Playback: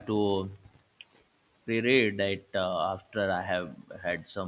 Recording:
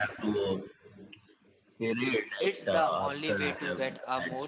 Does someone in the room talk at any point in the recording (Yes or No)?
Yes